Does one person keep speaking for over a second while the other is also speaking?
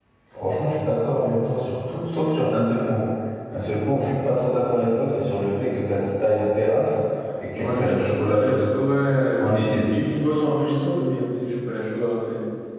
No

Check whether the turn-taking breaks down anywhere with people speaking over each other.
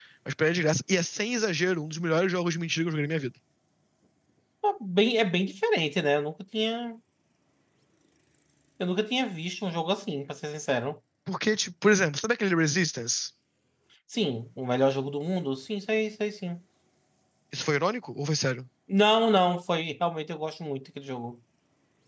No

